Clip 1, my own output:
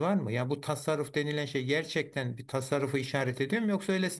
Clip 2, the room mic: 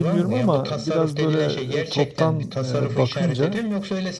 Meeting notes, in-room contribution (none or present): present